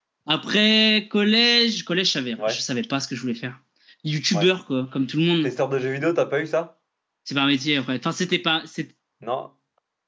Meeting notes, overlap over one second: none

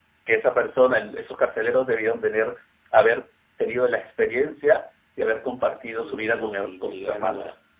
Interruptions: present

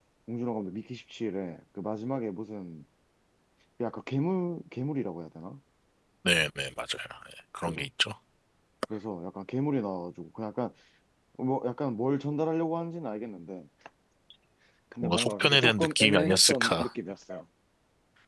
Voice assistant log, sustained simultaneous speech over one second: present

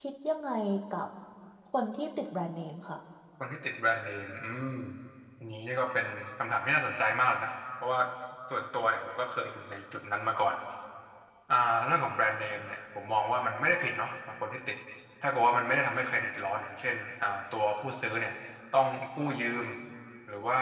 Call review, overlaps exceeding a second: none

